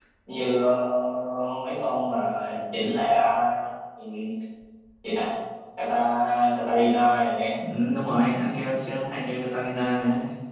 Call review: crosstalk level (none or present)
none